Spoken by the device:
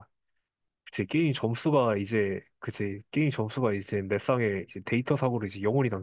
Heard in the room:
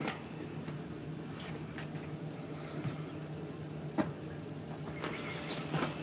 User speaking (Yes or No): No